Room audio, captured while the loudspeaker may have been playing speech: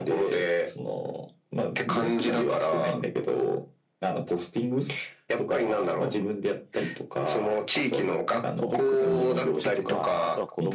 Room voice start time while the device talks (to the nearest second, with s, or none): 9 s